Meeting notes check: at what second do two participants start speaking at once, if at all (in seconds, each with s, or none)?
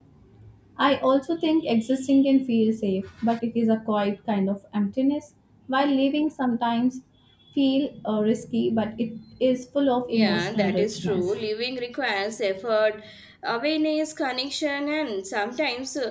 10.1 s